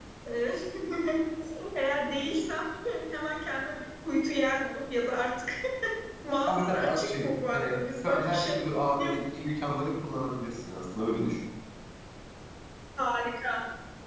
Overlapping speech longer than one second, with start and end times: 6.5-8.4

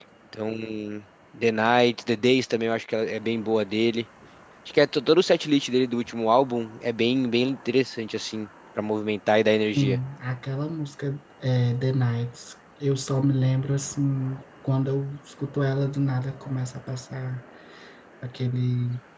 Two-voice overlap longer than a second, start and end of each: none

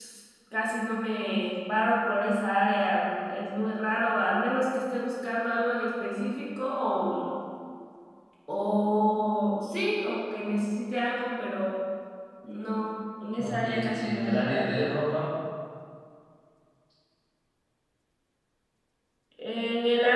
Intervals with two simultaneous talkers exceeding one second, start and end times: 13.4-14.7

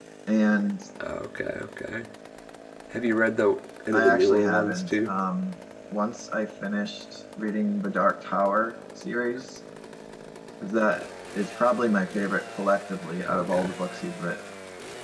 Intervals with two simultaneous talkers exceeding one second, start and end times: 3.9-5.1

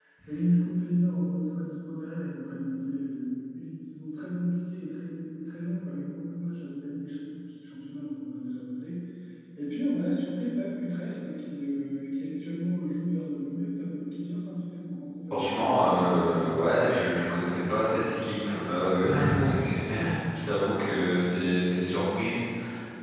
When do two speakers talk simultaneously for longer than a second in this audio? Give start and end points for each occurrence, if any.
15.3-16.6

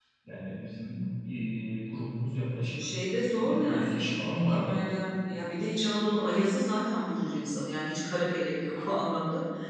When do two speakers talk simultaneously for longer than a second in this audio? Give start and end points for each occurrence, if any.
3.4-4.8

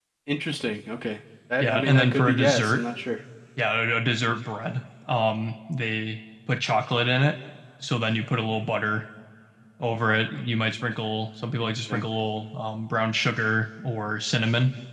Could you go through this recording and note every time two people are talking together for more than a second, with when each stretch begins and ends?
1.6-2.8

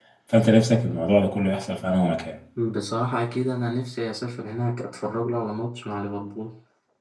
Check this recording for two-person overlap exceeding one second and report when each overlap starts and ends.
none

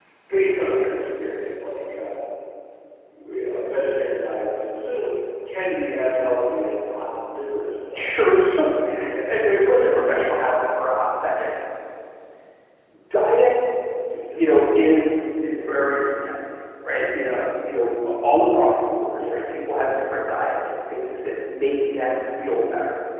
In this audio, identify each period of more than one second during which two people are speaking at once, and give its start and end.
none

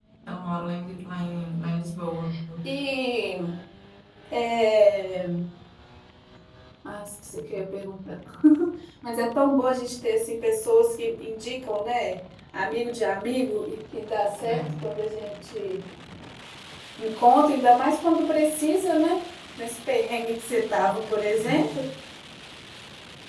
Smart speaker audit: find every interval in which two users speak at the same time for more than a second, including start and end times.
none

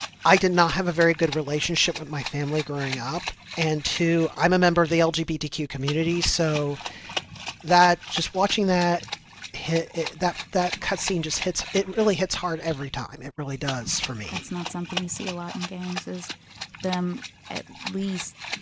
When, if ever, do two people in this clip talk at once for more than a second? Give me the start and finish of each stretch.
none

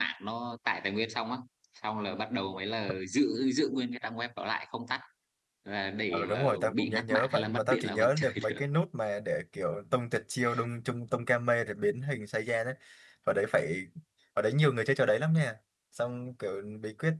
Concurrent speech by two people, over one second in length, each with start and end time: 6.1-8.6

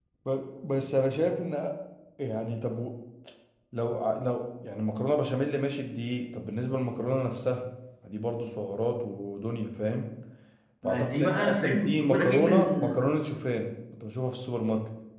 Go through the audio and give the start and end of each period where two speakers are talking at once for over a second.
10.8-13.0

